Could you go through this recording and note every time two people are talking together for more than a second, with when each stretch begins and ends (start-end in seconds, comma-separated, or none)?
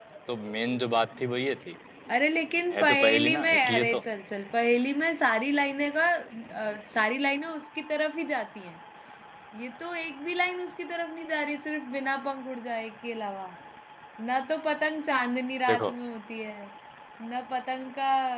2.7-4.0